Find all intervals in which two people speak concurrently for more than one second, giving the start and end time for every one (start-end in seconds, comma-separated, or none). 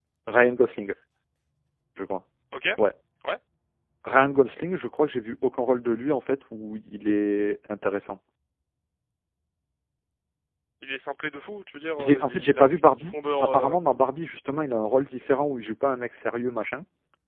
12.0-13.8